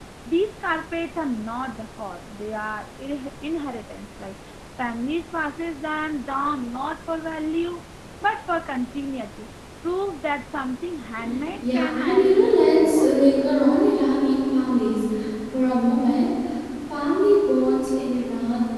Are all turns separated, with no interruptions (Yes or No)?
No